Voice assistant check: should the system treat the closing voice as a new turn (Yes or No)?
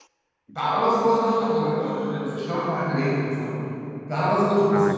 No